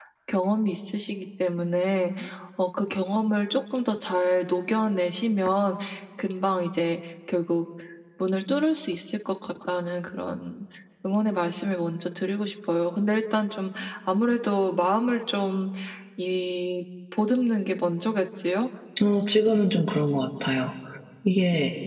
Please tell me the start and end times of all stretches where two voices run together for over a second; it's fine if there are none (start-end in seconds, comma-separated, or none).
none